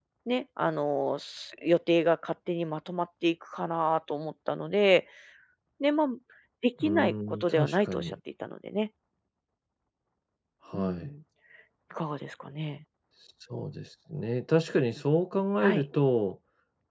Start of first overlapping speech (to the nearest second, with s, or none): 7 s